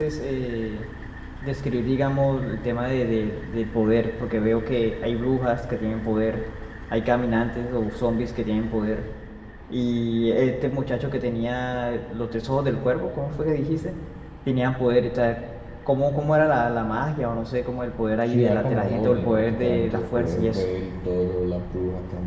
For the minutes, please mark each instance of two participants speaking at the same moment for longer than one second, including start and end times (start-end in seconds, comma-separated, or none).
18.3-20.6